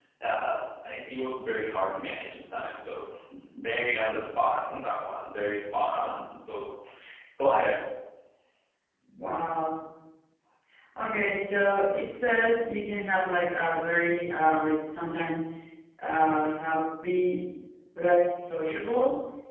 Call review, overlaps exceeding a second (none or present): none